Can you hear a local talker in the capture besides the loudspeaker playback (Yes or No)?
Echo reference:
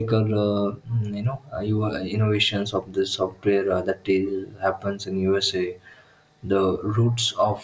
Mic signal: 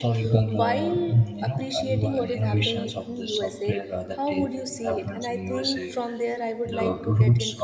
Yes